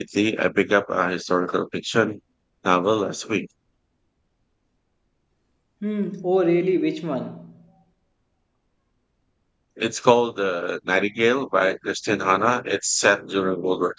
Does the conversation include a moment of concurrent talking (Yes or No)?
No